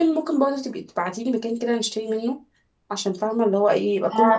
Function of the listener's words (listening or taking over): taking over